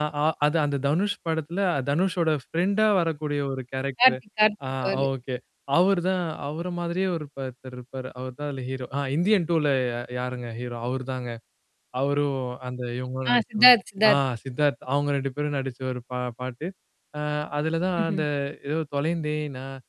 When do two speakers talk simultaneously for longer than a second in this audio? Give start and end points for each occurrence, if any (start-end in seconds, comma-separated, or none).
none